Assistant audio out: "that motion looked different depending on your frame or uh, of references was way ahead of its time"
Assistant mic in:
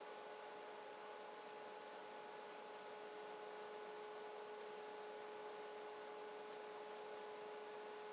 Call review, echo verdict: none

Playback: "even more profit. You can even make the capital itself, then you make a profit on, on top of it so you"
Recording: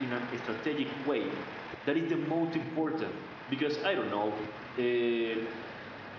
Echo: none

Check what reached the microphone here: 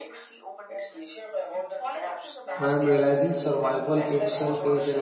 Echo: present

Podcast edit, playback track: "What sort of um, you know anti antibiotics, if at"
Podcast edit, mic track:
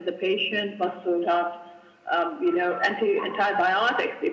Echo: present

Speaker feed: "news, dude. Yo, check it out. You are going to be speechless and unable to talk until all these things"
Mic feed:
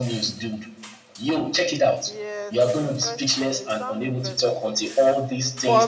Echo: present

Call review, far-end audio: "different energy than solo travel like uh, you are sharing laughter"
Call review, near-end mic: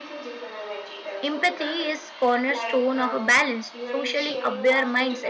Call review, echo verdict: present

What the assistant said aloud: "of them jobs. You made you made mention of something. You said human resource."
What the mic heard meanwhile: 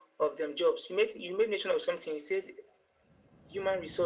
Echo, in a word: present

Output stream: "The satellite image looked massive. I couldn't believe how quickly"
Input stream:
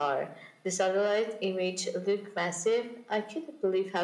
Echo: present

